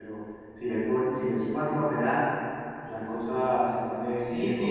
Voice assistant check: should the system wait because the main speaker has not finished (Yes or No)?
No